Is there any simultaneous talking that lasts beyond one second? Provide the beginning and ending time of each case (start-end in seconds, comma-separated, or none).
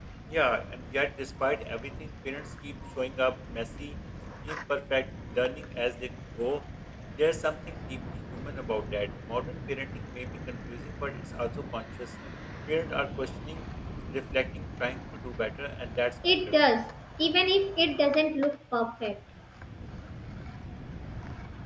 none